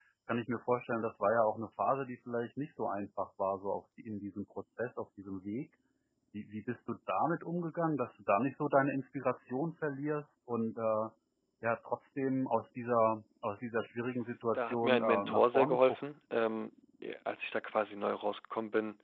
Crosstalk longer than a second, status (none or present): present